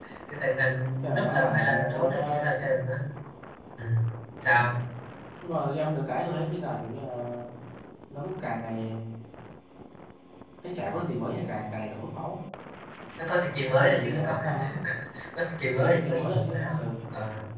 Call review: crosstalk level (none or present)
present